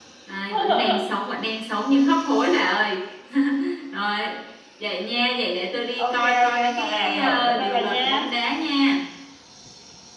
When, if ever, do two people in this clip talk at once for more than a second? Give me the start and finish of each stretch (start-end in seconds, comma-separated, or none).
6.0-8.0